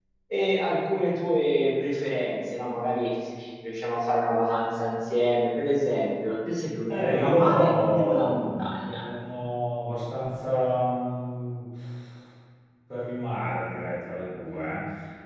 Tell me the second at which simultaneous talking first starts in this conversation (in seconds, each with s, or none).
6.9 s